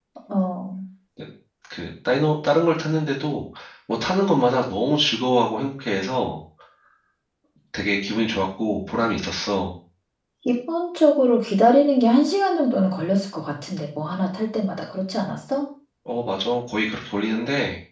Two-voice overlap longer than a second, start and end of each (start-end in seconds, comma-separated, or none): none